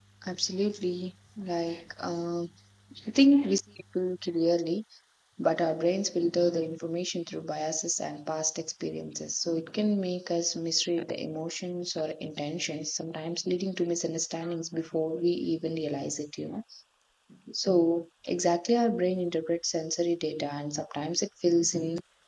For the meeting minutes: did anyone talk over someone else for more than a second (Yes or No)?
No